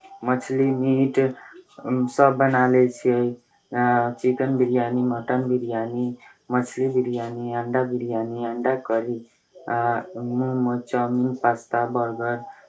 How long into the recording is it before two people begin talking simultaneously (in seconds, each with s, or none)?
none